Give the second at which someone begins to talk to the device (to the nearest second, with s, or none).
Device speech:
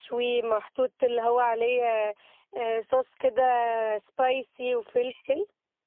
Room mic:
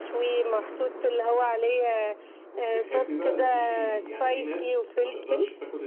3 s